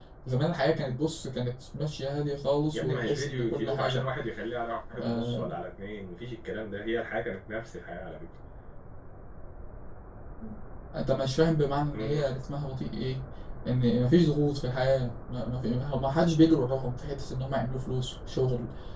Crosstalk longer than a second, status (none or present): present